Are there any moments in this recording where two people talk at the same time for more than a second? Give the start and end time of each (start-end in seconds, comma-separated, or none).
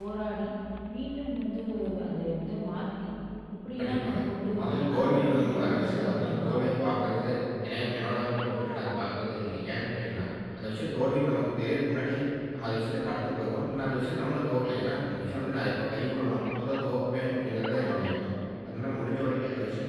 4.6-6.5